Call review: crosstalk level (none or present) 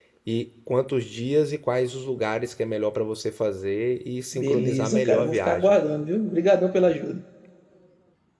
present